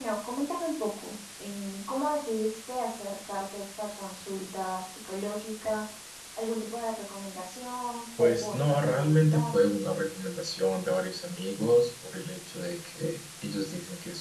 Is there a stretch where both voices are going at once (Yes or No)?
Yes